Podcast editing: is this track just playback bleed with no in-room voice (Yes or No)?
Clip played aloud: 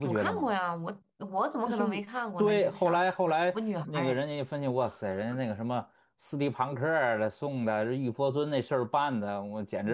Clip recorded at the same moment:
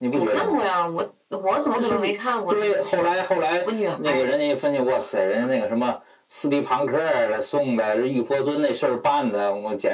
Yes